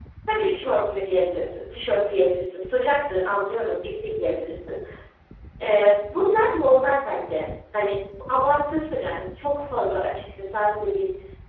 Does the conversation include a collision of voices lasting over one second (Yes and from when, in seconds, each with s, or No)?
No